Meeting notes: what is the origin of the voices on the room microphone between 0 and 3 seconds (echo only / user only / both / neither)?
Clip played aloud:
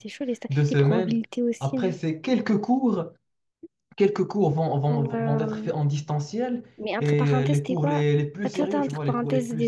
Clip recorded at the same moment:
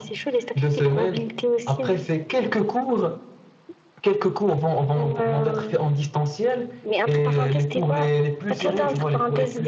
echo only